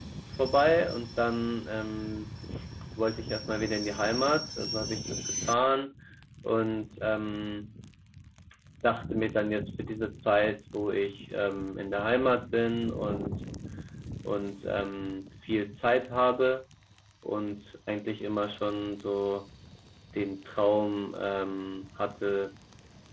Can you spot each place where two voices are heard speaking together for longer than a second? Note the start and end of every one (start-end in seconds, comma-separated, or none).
none